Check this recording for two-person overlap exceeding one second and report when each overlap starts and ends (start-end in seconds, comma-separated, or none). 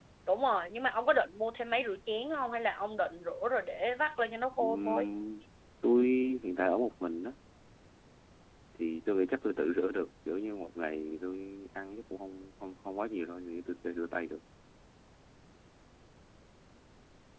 none